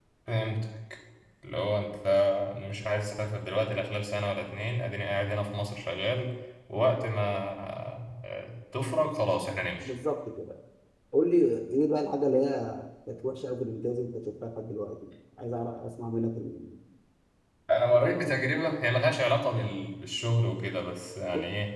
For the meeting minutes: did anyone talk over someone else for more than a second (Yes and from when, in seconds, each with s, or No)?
No